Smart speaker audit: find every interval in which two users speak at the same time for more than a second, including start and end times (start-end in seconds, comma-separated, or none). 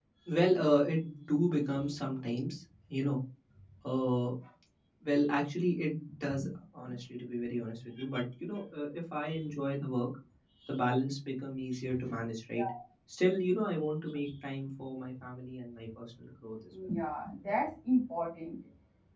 none